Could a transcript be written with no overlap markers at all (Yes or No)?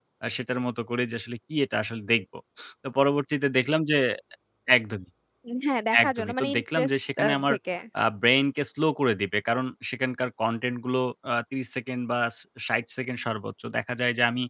No